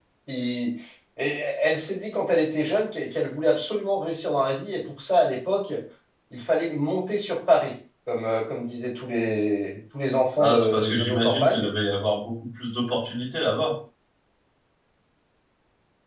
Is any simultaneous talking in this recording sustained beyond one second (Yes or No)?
Yes